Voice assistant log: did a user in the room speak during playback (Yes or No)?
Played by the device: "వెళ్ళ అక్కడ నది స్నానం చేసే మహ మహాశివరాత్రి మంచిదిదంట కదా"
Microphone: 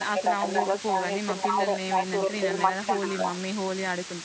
Yes